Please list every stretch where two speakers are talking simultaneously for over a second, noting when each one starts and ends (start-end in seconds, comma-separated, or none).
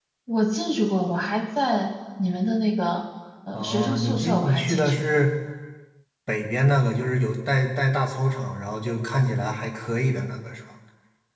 3.5-5.0